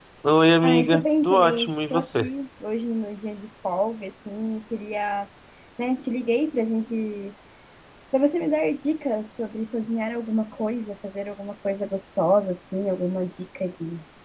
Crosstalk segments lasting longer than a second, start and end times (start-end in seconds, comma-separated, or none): 0.6-2.2